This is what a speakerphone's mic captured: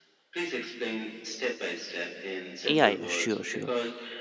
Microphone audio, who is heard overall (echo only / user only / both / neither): both